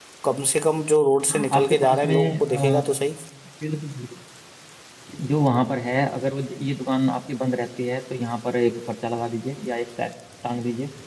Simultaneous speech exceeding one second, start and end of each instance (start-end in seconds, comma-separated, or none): 1.3-2.8